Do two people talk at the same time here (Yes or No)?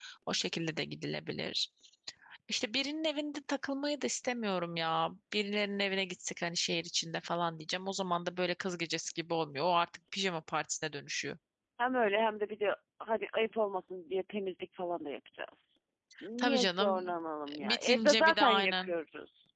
Yes